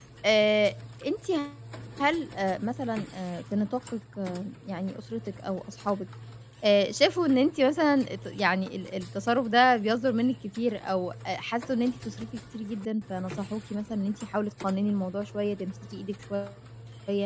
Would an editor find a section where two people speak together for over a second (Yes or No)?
No